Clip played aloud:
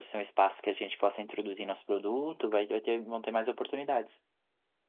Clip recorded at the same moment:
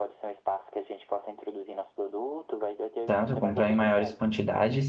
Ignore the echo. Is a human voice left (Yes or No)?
Yes